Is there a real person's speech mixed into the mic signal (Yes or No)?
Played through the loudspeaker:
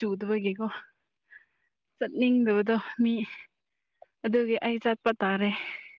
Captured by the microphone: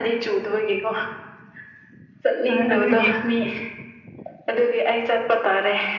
Yes